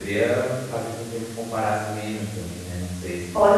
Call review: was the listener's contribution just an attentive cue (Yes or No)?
No